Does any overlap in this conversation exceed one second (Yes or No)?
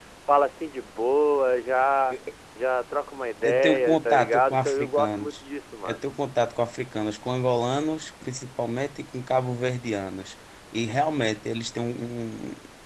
Yes